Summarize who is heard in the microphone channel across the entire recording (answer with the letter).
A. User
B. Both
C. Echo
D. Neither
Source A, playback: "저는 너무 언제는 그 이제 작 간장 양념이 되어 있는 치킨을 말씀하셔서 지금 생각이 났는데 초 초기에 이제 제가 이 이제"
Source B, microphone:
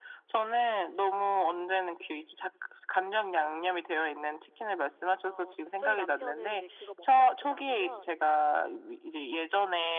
B